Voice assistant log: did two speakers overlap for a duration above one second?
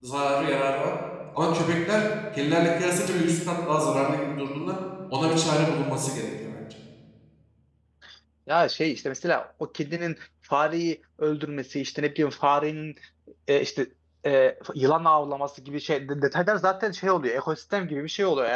No

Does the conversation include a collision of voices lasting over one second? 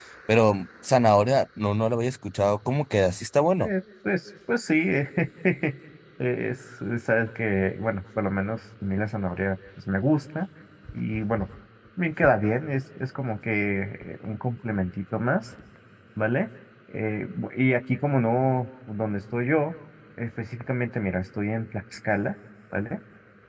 No

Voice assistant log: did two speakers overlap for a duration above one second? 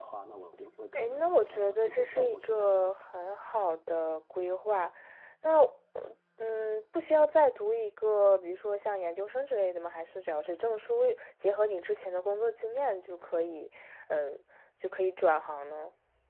Yes, from 0.9 s

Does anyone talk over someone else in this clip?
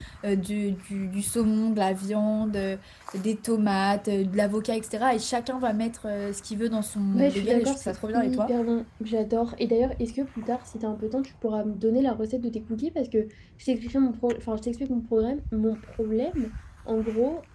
Yes, from 7.1 s

